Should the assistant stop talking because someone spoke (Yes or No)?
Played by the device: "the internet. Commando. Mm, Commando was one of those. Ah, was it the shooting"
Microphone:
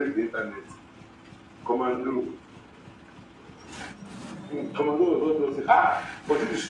No